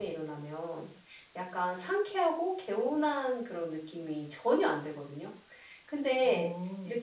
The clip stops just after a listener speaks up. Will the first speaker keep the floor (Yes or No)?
Yes